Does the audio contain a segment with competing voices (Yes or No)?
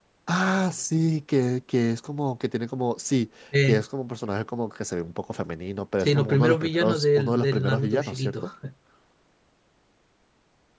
Yes